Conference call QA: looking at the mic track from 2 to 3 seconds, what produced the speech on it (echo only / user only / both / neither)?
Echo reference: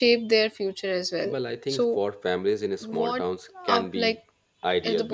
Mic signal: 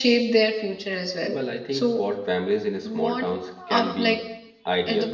echo only